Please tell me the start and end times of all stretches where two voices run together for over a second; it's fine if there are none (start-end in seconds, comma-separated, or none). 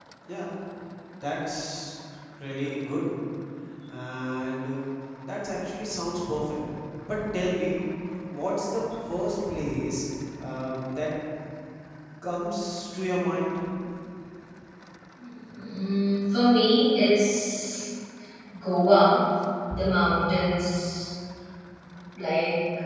none